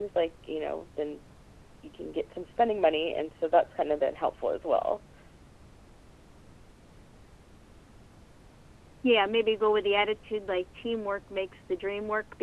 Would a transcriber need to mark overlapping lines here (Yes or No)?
No